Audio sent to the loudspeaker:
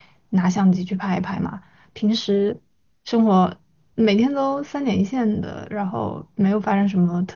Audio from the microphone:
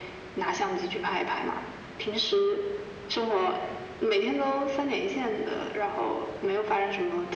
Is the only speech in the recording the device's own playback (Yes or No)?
Yes